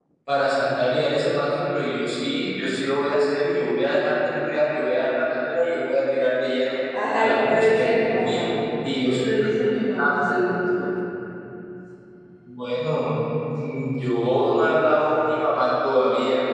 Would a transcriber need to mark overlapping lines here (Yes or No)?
Yes